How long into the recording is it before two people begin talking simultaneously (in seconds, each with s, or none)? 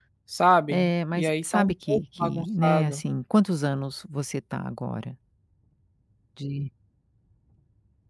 0.7 s